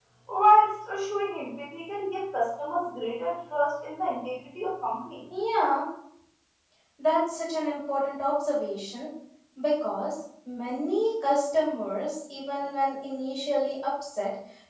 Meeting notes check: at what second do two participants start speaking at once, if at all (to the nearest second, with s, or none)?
none